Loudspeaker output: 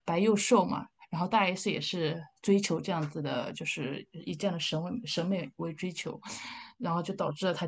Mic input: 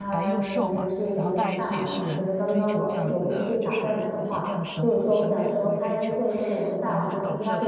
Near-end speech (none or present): present